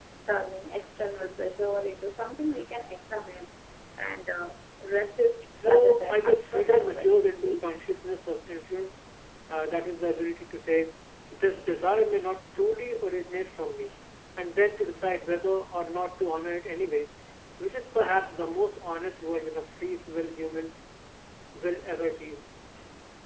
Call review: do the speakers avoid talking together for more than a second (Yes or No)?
No